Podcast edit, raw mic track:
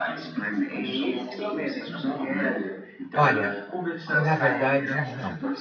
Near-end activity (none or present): present